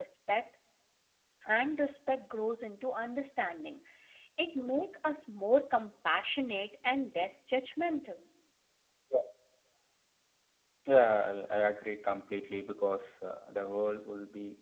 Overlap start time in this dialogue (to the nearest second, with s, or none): none